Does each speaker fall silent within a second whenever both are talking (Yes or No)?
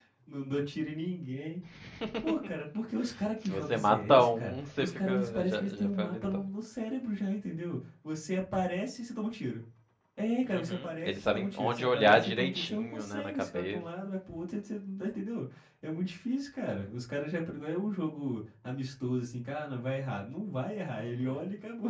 No